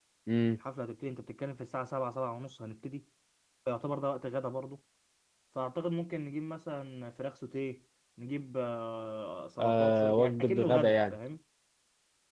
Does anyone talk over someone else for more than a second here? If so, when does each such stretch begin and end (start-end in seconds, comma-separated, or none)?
9.6-11.2